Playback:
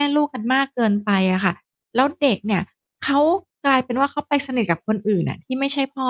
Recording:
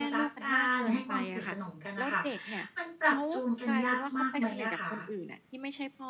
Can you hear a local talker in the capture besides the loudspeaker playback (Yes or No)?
Yes